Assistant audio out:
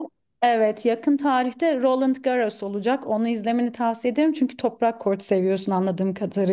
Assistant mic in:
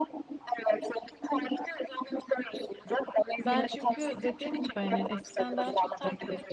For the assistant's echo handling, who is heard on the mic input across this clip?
both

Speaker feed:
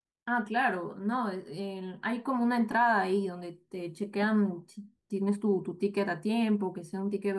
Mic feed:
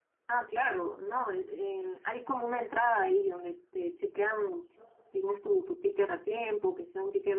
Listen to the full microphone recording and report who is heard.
echo only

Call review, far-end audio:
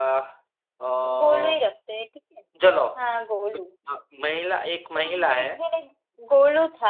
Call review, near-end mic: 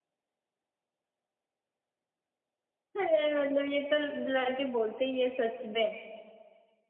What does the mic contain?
user only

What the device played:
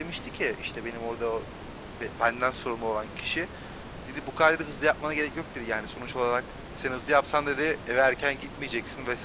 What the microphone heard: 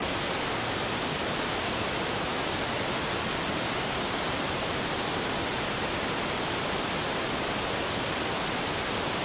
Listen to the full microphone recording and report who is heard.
neither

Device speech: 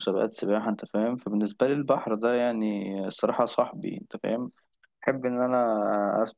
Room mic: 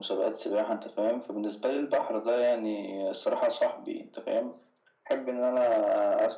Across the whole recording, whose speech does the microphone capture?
echo only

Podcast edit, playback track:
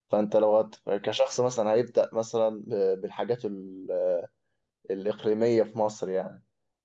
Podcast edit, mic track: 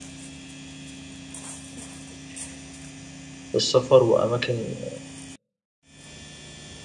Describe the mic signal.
user only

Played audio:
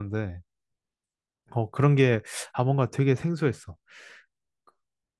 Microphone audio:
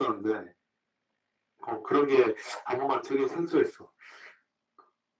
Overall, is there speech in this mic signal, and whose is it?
echo only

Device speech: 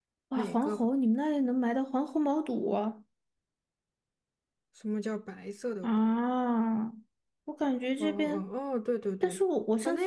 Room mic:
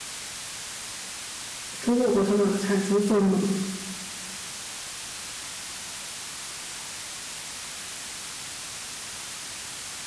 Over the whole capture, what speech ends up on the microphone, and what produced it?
user only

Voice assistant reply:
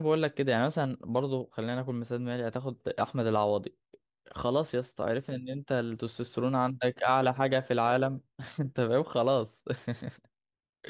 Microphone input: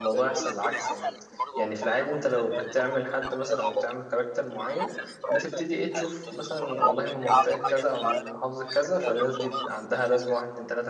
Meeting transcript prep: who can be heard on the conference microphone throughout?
both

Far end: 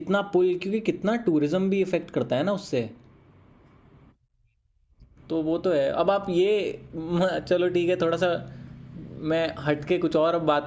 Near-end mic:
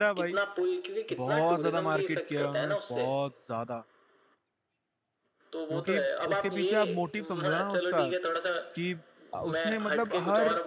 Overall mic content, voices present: both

